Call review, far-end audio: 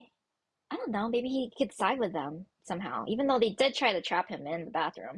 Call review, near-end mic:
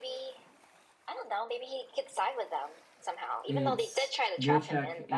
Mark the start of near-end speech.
3.5 s

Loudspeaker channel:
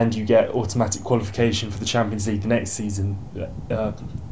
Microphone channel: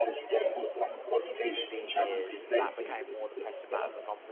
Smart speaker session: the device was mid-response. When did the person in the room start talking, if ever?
1.5 s

